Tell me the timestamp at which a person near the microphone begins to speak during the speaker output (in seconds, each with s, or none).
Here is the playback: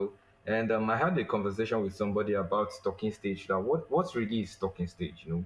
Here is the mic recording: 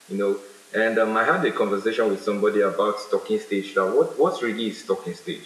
none